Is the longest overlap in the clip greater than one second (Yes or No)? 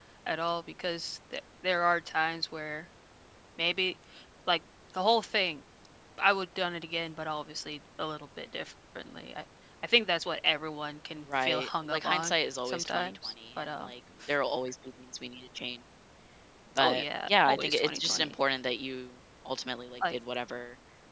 Yes